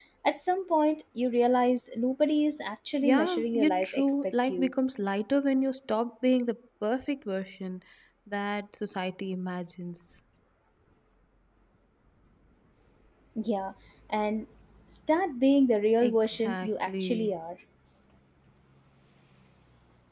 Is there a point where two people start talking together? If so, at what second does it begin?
3 s

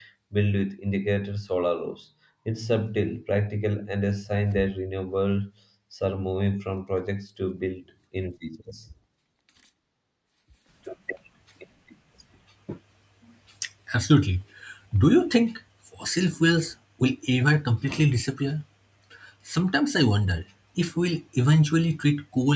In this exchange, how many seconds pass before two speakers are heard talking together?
none

